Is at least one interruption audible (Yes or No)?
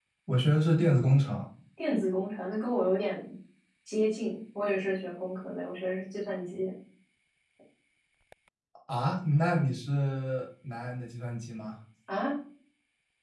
No